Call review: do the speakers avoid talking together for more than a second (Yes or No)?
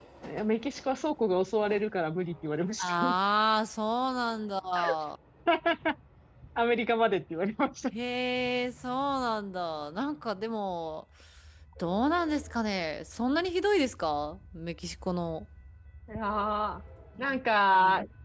Yes